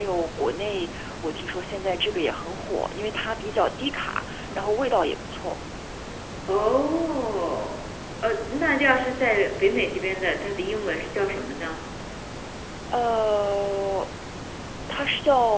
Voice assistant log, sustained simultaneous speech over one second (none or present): none